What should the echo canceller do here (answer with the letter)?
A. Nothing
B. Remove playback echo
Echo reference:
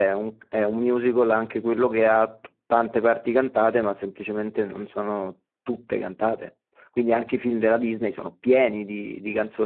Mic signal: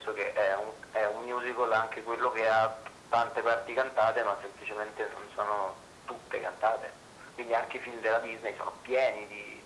B